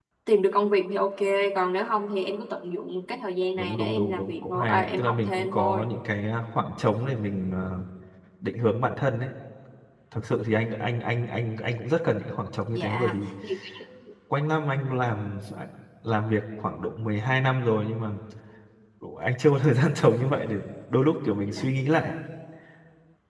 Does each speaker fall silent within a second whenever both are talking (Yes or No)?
No